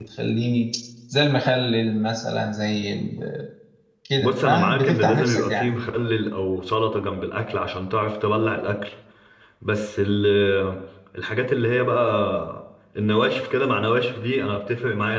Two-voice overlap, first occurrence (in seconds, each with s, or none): 4.2 s